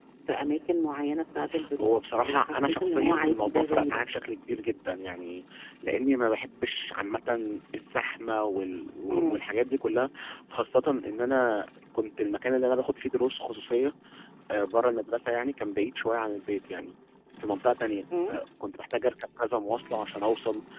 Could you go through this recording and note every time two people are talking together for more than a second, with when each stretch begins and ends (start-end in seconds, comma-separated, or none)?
1.8-4.0